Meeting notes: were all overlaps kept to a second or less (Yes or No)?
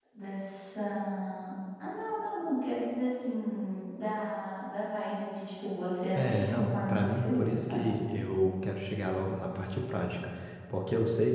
No